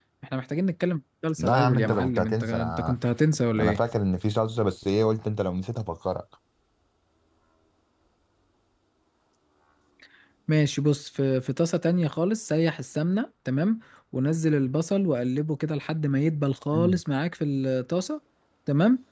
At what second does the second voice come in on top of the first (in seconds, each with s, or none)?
1.4 s